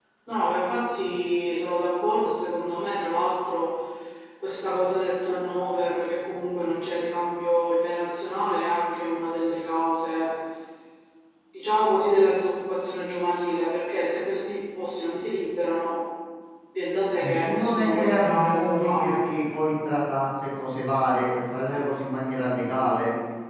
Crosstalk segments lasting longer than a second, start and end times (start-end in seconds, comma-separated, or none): 17.2-19.3